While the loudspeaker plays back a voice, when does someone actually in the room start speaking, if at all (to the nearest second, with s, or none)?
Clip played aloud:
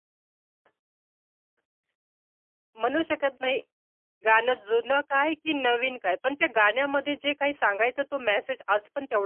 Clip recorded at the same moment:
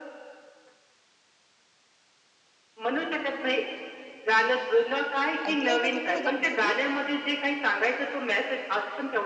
5 s